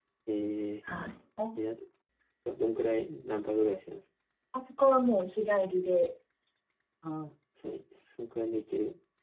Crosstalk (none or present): none